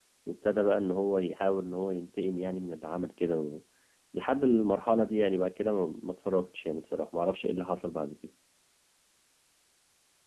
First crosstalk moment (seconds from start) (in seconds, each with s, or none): none